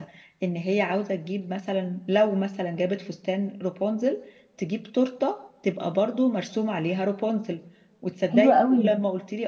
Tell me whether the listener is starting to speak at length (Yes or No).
No